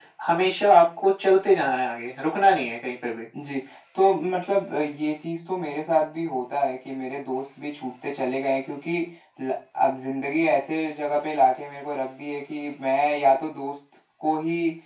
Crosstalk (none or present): none